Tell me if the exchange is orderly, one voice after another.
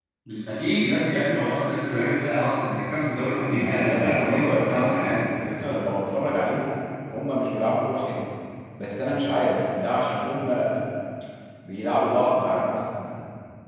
No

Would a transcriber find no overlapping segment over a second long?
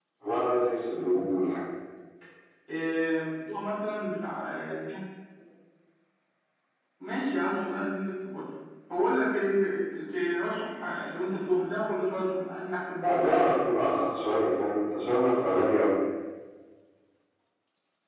Yes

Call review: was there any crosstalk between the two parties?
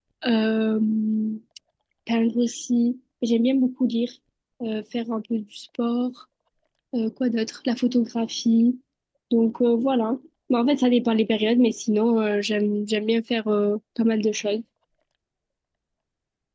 No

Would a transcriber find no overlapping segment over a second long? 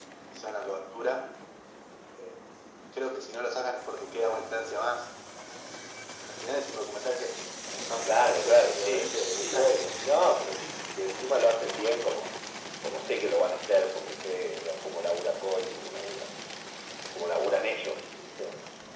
No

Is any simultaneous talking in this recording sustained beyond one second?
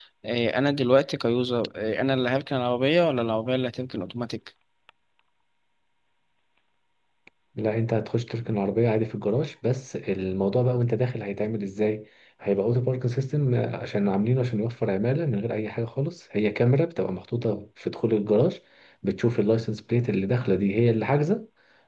No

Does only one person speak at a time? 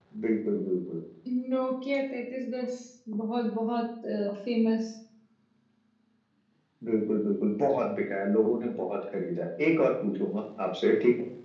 Yes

